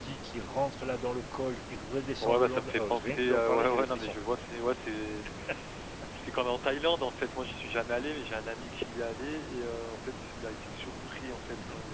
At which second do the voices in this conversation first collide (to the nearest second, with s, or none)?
2 s